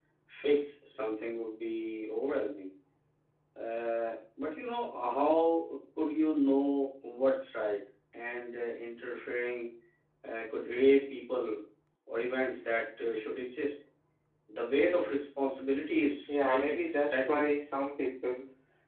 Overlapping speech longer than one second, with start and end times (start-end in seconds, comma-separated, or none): 16.3-17.5